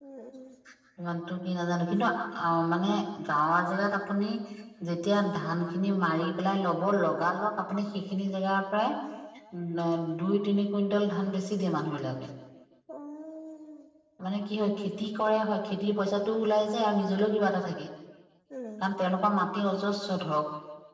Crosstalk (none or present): none